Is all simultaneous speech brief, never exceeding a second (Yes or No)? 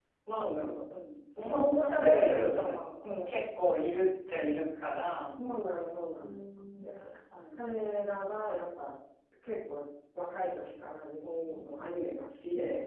No